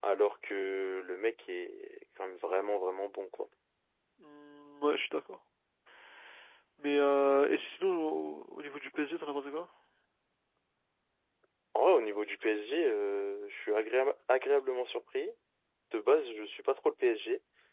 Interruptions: none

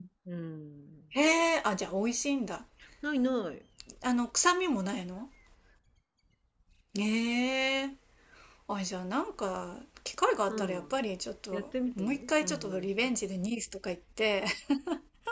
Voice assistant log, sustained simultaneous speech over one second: present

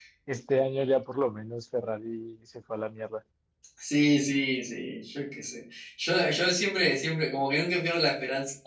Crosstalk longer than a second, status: none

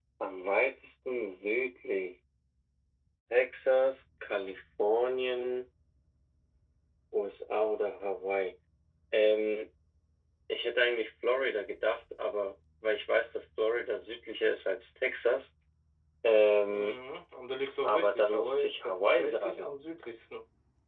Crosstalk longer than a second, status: present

